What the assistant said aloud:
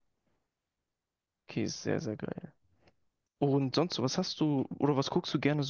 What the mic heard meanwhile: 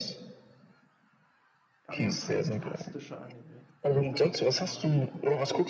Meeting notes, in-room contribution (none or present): present